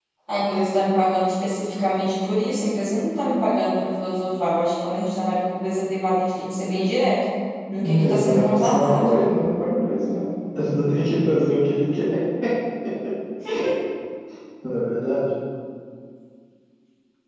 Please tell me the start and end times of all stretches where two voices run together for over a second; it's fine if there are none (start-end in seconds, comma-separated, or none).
7.8-9.1